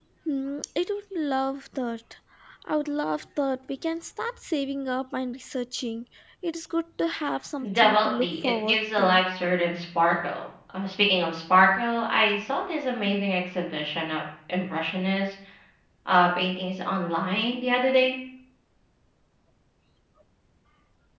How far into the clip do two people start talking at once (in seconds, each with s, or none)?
7.6 s